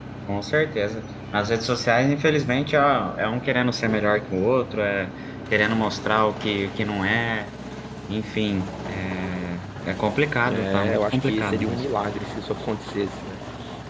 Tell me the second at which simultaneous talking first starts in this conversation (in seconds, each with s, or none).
10.4 s